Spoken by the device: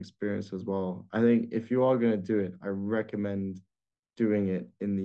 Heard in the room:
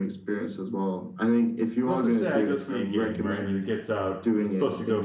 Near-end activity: present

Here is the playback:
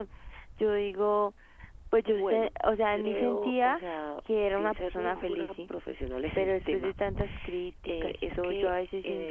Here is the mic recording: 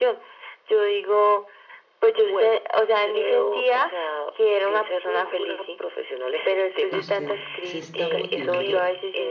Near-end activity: present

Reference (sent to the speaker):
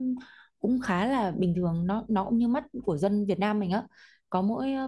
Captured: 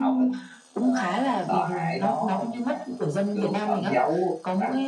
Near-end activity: present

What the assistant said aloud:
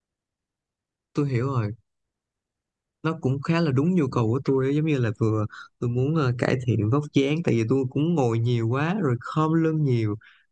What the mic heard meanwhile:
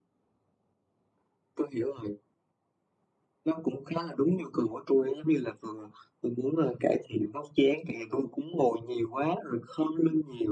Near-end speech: none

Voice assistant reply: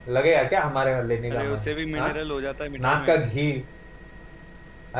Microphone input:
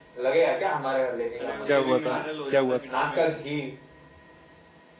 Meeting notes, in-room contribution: present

